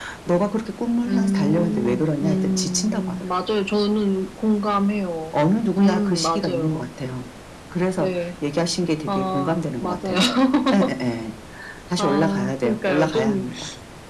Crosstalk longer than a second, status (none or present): present